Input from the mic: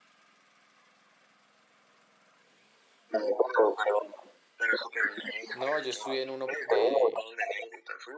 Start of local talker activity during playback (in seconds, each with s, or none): 5.5 s